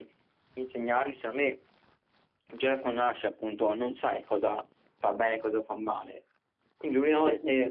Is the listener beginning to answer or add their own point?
No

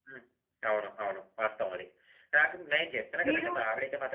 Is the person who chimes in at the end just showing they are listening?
Yes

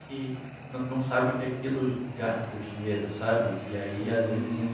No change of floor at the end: No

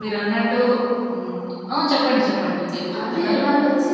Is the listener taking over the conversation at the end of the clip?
Yes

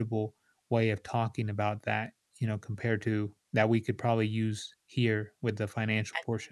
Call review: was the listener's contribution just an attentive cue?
No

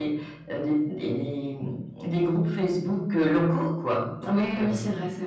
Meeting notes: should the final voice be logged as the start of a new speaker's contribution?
Yes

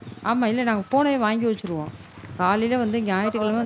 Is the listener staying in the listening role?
Yes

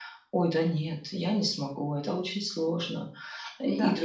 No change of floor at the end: Yes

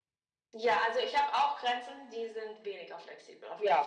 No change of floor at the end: No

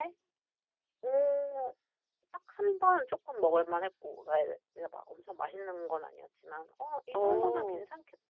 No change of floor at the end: Yes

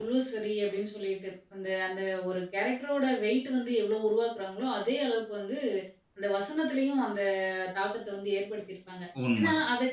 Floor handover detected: No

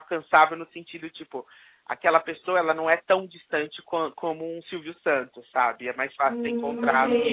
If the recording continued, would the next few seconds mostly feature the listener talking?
Yes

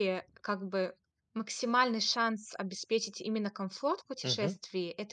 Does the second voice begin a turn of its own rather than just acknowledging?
No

